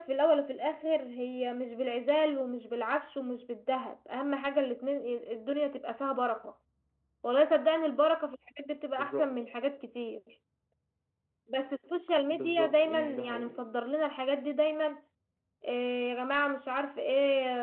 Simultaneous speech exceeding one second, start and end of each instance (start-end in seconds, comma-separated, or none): 12.3-13.5